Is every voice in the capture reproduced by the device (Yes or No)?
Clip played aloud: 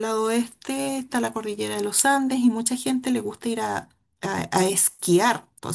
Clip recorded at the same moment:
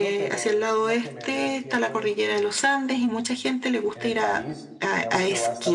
No